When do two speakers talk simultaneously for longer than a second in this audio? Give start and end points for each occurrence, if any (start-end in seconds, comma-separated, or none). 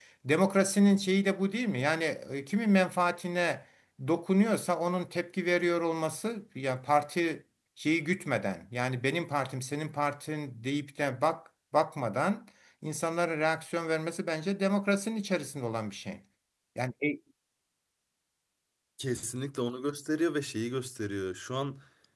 none